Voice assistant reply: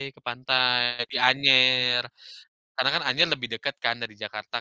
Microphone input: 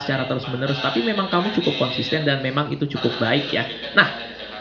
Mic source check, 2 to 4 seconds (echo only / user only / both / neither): both